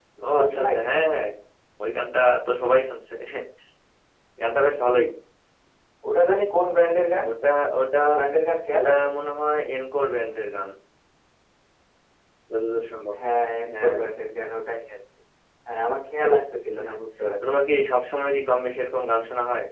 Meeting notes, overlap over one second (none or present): none